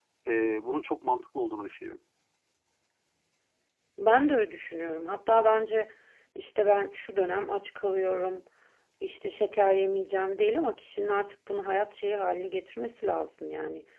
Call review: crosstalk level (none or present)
none